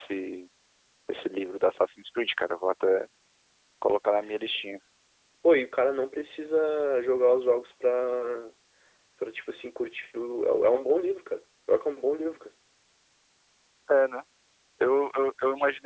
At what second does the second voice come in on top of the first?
none

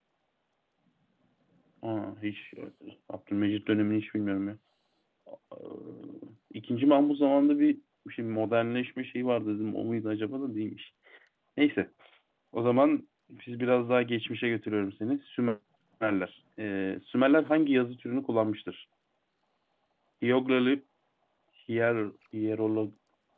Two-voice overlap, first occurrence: none

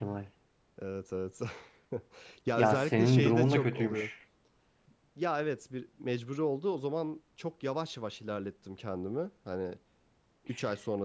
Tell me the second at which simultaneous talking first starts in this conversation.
2.6 s

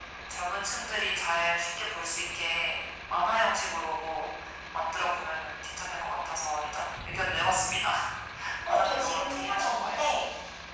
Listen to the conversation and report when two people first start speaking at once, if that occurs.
8.7 s

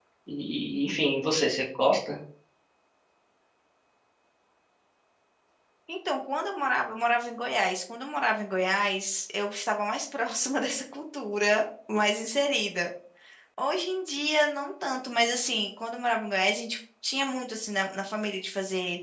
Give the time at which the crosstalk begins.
none

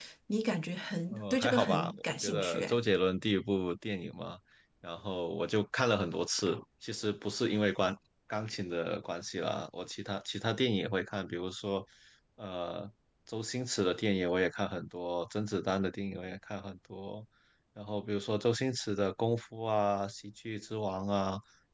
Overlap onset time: 1.1 s

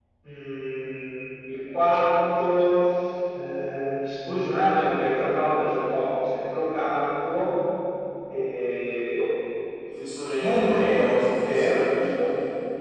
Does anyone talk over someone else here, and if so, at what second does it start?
10.4 s

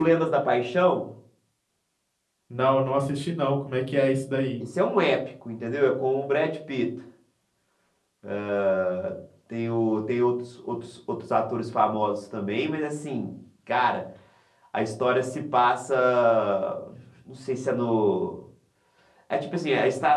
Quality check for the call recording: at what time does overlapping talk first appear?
none

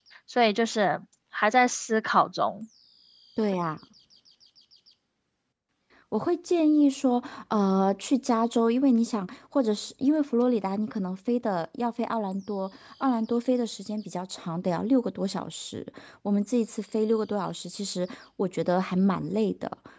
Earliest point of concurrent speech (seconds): none

